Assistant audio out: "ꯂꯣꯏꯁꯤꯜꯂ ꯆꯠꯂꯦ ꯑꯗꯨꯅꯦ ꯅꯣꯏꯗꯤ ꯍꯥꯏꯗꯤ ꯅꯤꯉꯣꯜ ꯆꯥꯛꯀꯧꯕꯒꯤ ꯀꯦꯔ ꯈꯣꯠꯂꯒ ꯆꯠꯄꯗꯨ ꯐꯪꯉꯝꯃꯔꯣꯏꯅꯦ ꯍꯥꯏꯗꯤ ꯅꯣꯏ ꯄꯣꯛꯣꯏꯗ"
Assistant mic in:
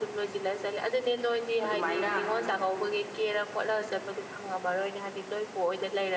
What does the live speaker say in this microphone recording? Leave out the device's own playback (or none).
ꯑꯗꯨꯃꯥꯏꯅ